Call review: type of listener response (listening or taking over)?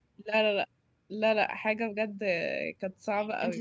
taking over